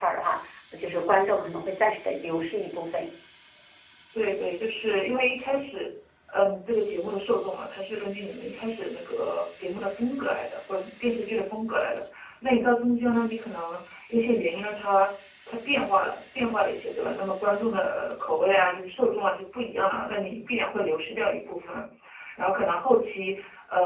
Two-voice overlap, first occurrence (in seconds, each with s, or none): none